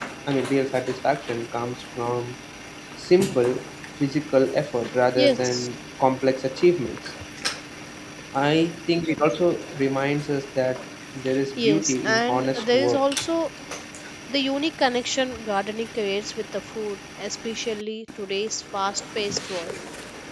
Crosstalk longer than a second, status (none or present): present